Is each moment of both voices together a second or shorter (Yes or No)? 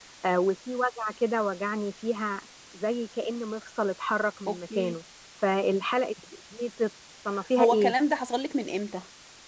Yes